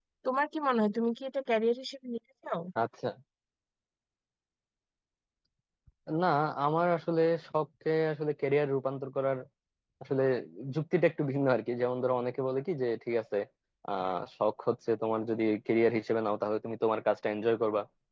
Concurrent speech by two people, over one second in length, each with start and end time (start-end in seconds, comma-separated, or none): none